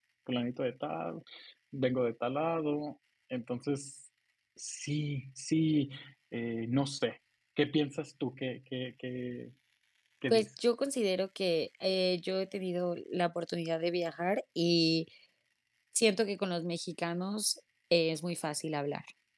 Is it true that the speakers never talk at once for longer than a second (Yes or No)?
Yes